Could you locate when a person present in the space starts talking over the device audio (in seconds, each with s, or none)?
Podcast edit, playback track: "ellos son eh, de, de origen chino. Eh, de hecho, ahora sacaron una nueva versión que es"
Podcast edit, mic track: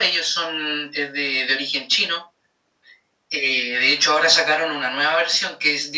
none